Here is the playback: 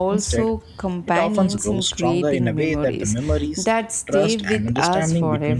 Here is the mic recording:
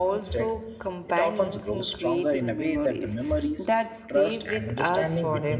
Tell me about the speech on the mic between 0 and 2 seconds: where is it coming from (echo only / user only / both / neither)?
echo only